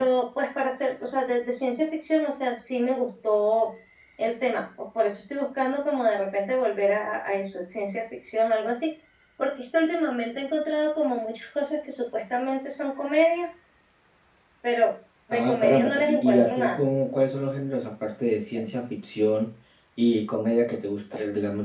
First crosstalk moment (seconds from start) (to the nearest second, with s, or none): 15 s